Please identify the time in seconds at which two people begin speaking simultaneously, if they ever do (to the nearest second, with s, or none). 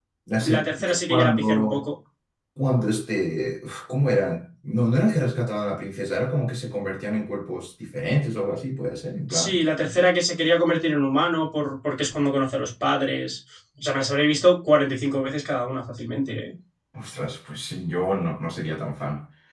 1 s